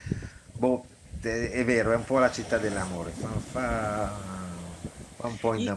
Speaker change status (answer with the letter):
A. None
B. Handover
B